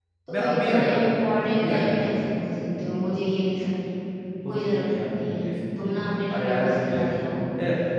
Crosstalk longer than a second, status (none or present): present